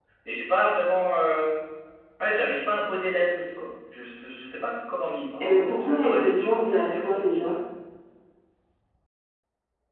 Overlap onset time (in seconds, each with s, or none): 5.4 s